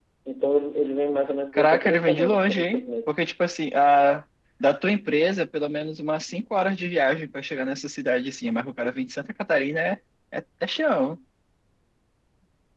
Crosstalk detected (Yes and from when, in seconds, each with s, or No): Yes, from 1.5 s